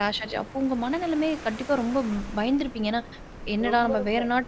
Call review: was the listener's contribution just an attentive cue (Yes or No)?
Yes